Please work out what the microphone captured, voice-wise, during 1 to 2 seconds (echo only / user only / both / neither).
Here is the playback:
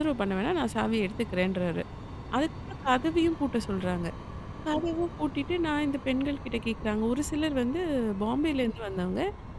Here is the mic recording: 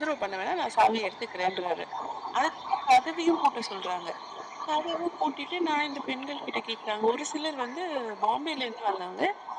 echo only